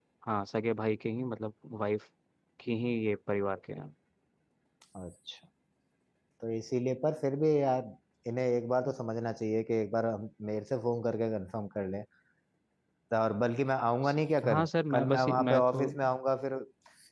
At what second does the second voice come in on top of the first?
14.0 s

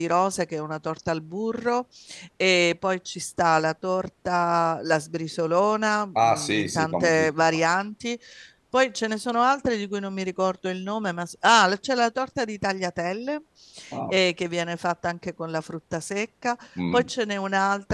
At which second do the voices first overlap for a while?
6.2 s

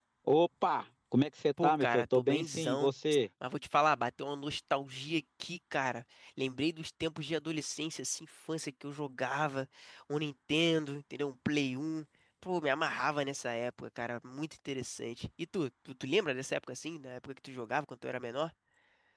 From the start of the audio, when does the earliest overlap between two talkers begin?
1.6 s

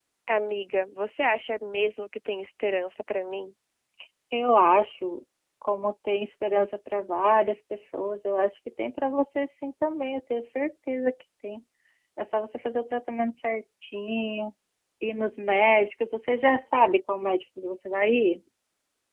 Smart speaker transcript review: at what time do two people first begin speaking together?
none

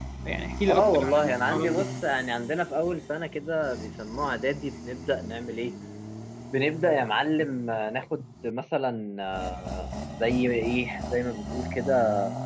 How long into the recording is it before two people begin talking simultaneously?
0.7 s

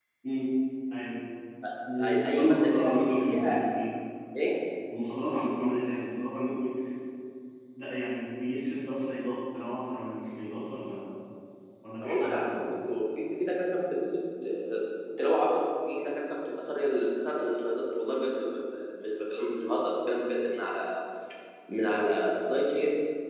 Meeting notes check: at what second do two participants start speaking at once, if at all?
2.0 s

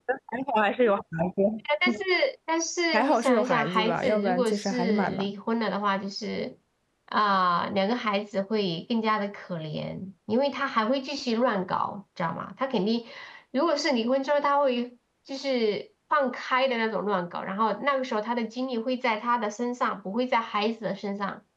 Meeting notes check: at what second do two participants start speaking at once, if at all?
2.9 s

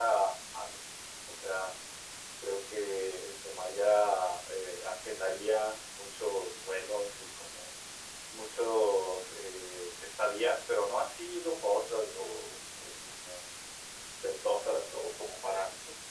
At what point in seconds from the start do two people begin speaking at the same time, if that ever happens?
none

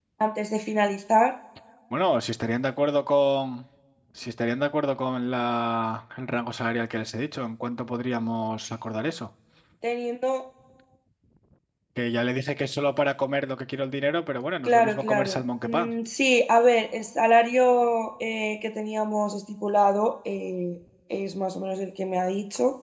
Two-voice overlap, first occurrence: 14.7 s

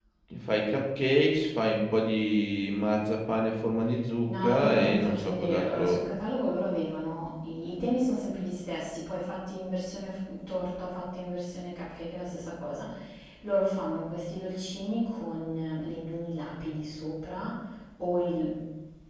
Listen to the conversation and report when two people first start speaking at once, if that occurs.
4.2 s

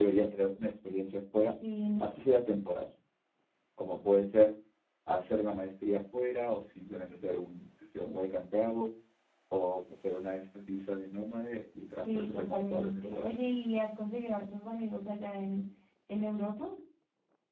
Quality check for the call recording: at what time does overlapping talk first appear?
11.9 s

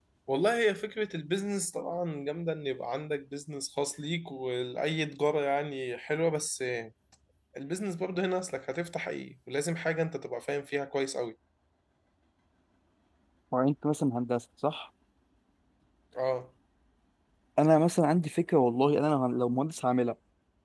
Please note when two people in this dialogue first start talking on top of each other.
none

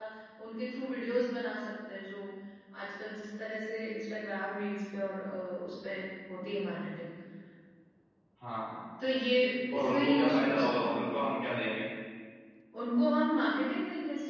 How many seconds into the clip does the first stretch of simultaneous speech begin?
9.8 s

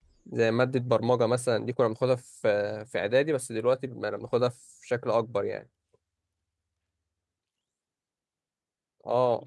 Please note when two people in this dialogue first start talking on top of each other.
none

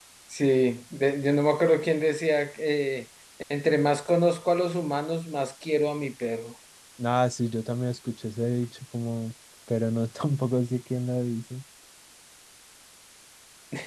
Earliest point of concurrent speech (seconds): none

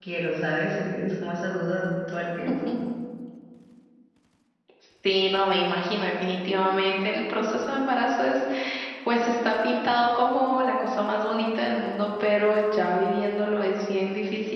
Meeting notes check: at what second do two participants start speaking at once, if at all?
none

